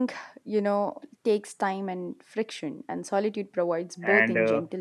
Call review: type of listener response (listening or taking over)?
taking over